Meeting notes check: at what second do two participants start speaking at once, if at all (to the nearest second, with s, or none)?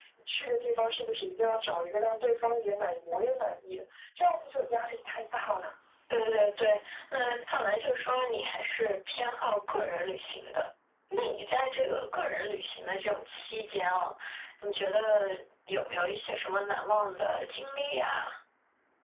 none